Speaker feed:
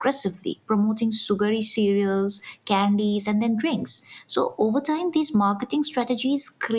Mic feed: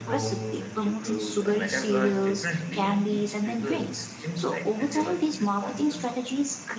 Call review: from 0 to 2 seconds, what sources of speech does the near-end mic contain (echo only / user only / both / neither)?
both